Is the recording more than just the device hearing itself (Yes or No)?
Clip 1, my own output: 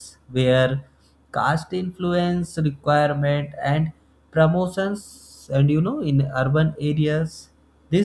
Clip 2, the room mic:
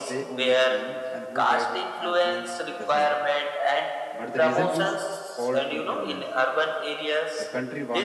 Yes